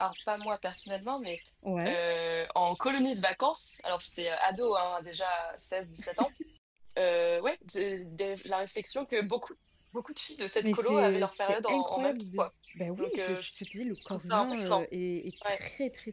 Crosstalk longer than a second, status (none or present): present